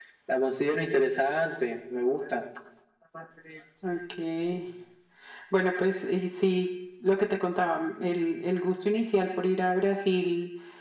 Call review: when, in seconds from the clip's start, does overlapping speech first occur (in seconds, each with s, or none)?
none